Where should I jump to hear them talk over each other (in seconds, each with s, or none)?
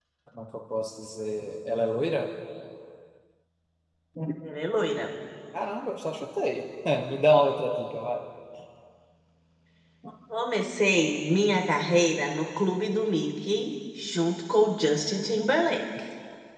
none